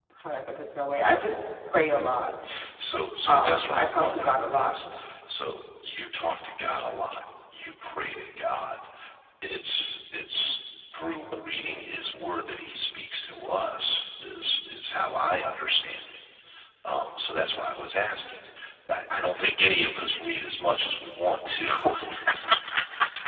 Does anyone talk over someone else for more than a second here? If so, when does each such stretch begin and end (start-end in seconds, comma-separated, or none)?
3.3-4.7